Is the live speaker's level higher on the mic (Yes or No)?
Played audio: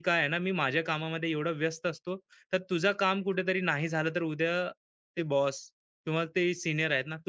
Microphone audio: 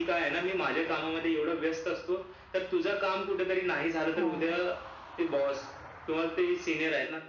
No